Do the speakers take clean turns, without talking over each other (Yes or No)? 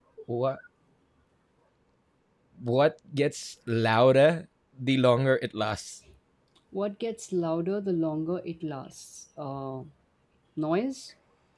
Yes